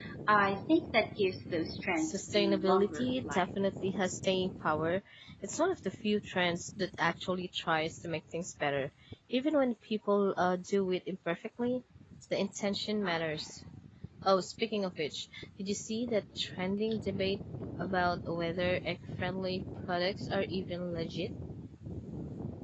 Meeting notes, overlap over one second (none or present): present